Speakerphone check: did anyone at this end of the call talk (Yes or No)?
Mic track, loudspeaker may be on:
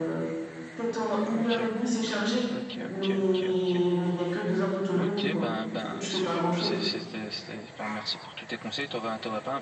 Yes